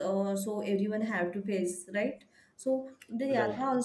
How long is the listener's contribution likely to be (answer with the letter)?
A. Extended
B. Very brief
B